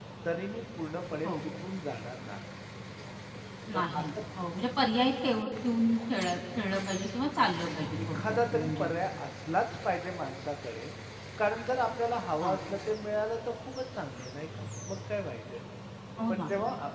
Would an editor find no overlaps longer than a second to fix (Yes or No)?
No